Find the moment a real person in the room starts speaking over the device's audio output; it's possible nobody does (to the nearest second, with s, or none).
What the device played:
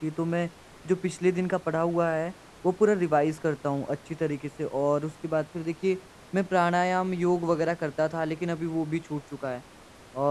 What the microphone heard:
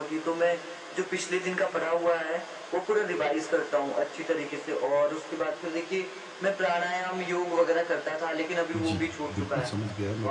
9 s